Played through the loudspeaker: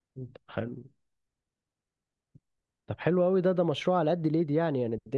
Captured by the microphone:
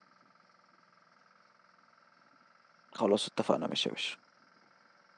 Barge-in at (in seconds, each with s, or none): 3.0 s